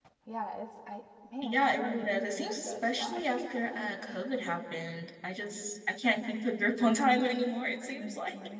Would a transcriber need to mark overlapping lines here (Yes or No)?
Yes